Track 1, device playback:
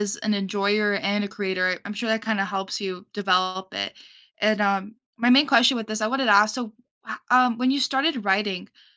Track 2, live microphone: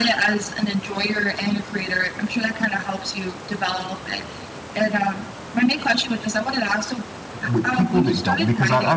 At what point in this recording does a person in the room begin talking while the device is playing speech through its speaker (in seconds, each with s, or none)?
7.4 s